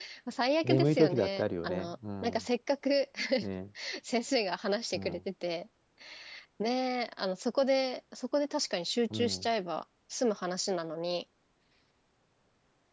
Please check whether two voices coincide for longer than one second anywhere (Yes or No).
Yes